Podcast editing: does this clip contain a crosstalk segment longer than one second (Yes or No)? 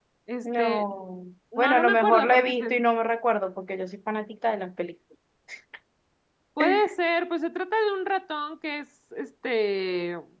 Yes